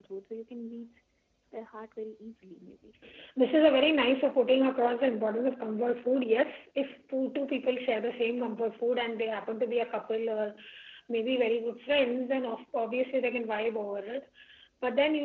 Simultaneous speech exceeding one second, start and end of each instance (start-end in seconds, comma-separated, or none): none